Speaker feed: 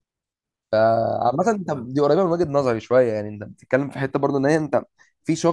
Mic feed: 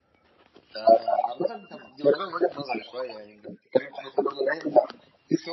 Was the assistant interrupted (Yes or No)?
No